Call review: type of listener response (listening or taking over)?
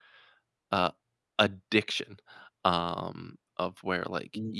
listening